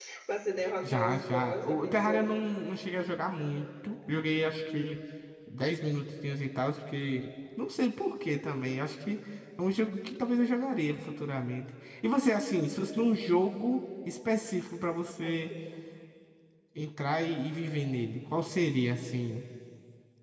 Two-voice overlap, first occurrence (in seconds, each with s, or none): 0.8 s